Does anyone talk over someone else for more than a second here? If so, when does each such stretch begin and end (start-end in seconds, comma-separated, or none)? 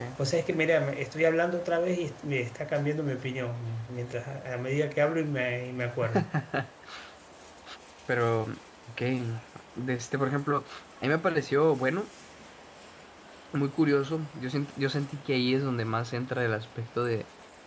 none